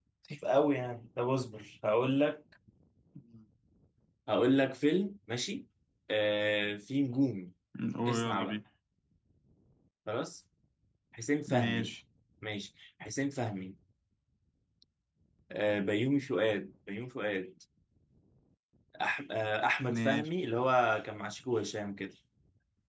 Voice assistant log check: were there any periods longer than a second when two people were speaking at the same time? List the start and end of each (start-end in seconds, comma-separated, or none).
none